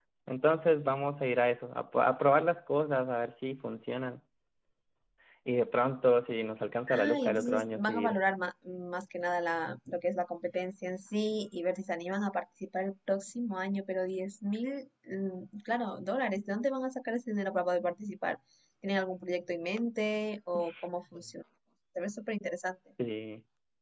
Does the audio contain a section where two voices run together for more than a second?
Yes, from 6.9 s

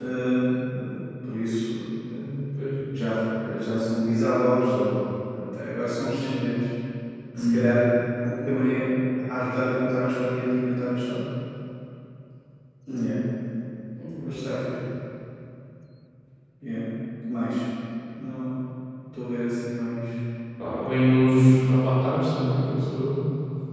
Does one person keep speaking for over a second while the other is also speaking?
No

